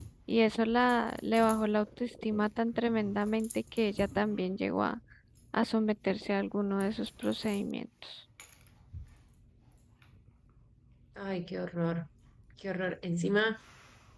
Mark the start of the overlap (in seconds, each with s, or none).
none